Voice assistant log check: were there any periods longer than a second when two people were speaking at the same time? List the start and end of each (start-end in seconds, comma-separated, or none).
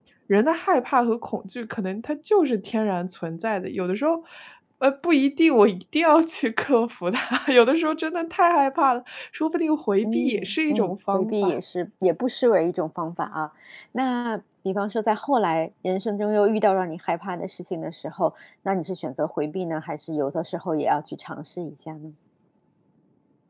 10.0-11.5